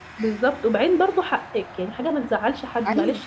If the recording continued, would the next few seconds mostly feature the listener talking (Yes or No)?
No